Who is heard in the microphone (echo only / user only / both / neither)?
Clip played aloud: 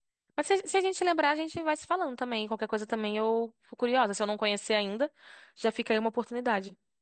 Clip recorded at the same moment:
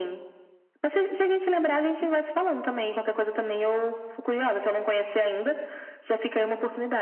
echo only